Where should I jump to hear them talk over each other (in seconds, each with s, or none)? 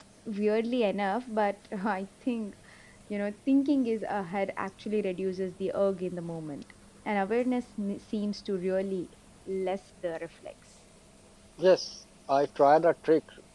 none